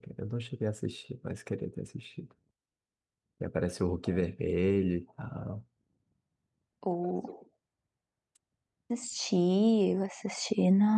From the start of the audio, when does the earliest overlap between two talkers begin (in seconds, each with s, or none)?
none